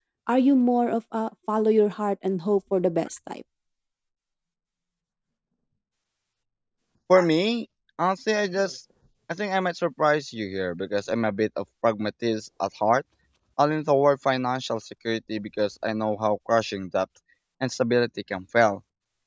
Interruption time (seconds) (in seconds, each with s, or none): none